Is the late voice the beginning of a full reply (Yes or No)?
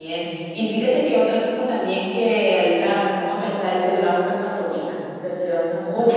No